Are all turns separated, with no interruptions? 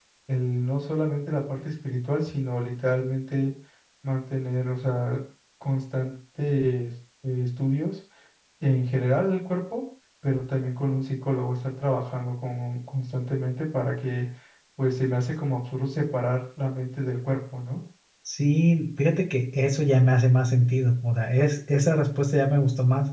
Yes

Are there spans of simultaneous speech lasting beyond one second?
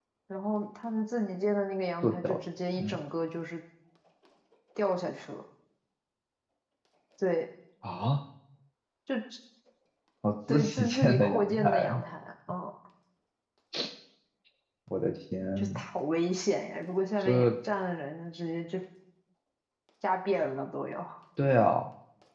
Yes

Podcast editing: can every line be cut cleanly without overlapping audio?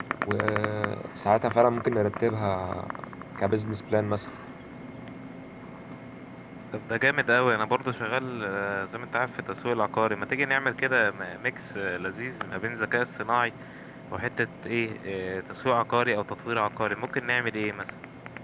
Yes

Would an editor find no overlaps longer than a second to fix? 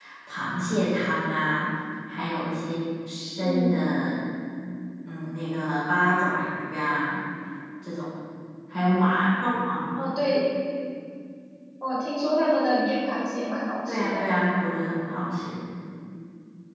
Yes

